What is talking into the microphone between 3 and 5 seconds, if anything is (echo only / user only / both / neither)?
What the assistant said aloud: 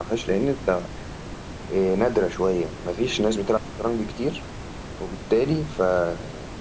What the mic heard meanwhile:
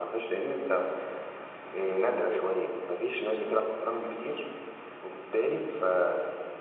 echo only